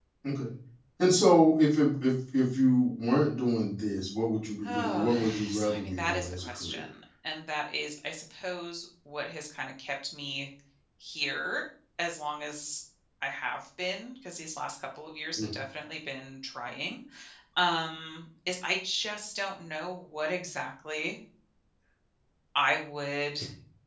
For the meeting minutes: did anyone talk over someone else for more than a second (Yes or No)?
Yes